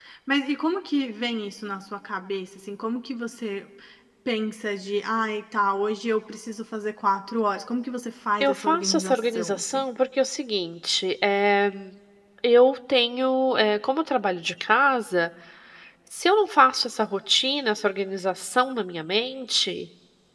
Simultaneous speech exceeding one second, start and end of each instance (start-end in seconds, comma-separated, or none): 8.4-9.8